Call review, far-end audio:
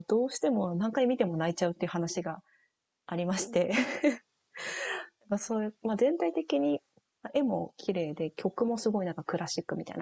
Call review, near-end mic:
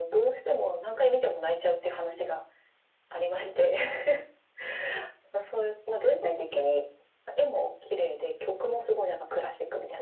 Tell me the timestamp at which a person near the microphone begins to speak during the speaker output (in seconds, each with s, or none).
none